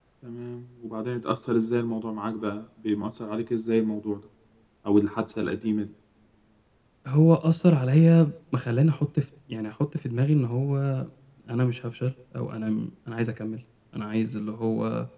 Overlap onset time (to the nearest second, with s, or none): none